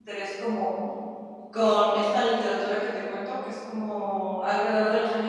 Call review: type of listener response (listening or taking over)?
listening